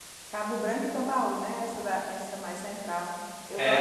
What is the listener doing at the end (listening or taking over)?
taking over